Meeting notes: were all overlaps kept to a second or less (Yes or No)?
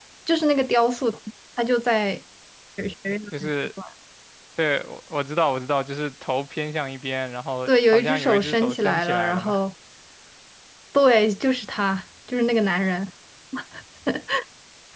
No